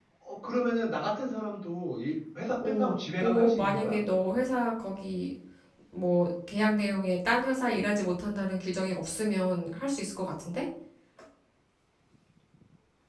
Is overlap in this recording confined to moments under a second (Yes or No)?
No